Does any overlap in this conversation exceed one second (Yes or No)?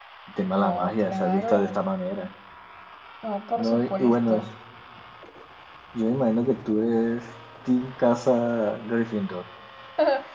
Yes